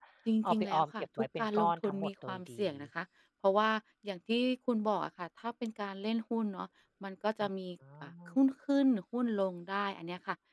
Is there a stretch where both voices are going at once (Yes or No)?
Yes